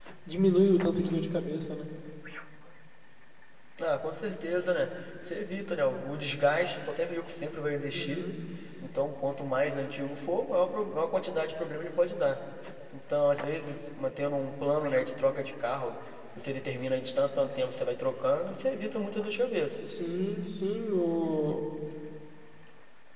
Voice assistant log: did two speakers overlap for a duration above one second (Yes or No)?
No